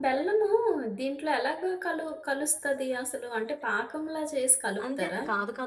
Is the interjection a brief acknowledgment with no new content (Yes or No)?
No